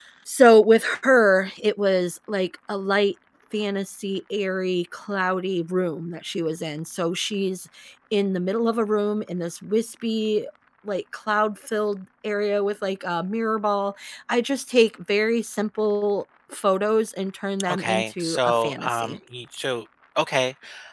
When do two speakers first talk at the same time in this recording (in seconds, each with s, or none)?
17.6 s